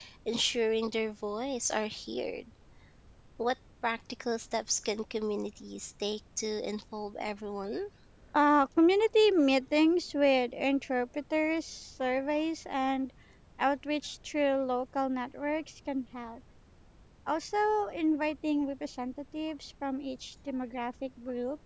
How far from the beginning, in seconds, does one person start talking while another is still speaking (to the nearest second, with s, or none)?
none